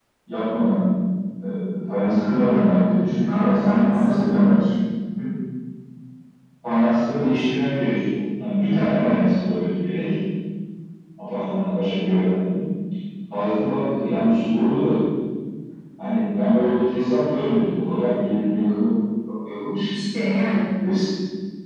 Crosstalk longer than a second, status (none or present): present